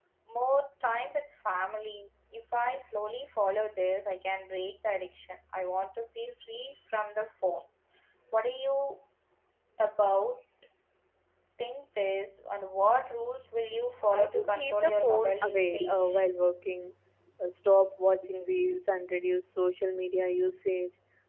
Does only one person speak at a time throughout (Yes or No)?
No